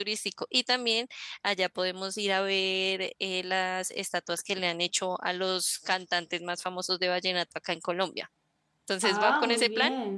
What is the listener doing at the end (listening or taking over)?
taking over